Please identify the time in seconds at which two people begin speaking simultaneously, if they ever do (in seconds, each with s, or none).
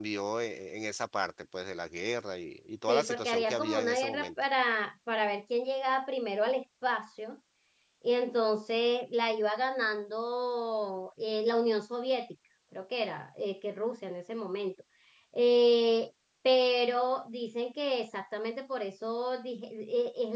2.9 s